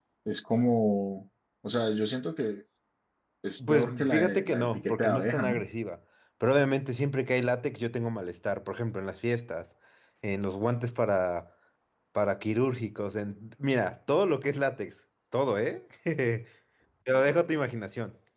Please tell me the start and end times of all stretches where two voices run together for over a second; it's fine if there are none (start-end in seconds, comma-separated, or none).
3.7-5.6